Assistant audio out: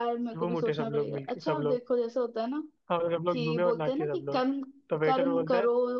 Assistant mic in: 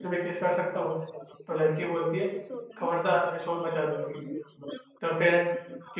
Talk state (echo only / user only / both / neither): both